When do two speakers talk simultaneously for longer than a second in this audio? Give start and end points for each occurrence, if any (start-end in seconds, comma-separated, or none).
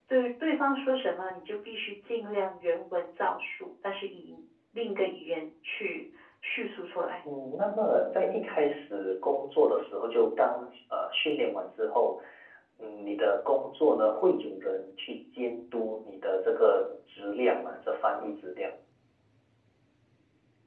none